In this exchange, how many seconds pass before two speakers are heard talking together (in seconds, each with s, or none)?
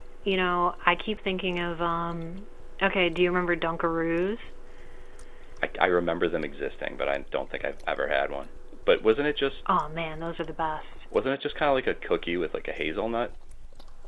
none